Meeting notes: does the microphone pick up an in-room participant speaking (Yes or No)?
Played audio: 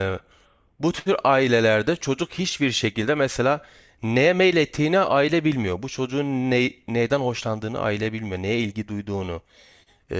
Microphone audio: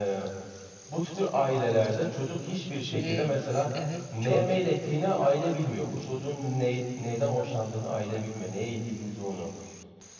Yes